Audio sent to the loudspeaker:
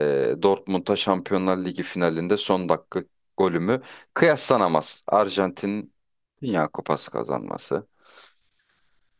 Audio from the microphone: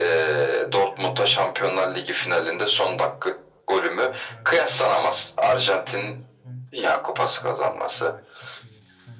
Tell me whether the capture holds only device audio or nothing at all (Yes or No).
No